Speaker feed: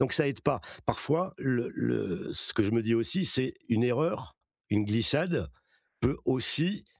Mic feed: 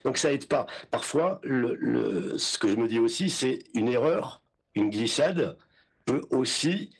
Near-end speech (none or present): none